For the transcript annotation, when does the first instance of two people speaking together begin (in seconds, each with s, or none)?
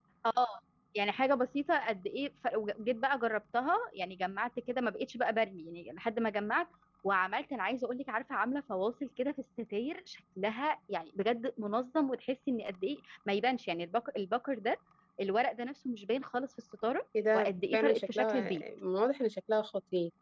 17.1 s